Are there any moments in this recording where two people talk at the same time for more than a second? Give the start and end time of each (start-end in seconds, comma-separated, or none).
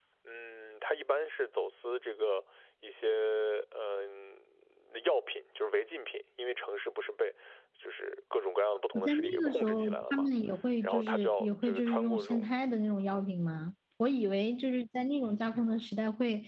9.0-10.3, 10.8-12.5